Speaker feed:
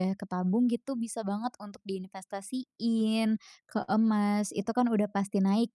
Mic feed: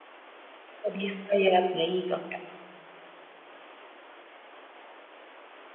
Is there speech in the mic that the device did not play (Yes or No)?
Yes